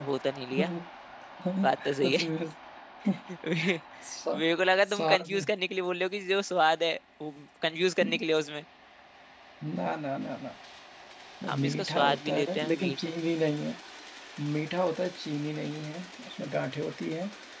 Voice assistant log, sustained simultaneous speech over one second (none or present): present